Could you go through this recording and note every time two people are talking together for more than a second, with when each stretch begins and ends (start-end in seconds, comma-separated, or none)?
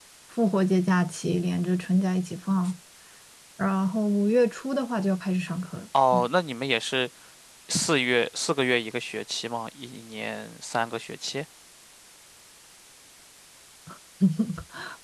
none